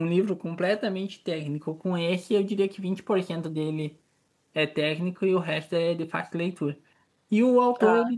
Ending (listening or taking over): listening